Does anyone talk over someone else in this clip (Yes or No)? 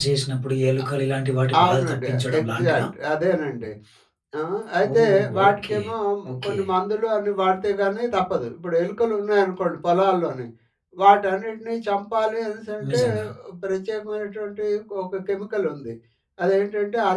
Yes